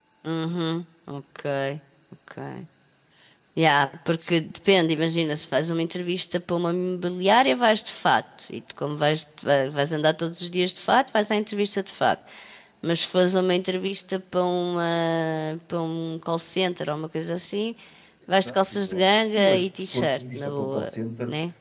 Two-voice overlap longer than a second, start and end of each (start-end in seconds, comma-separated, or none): 18.4-20.9